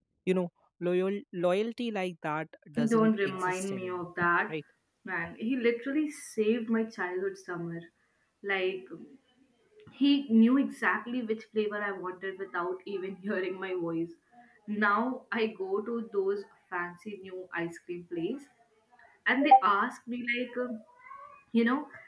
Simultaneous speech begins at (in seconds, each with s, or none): 2.8 s